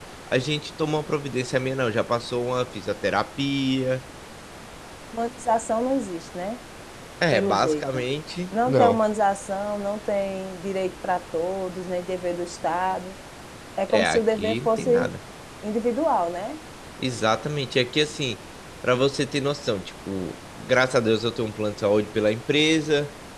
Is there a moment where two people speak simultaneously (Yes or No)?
Yes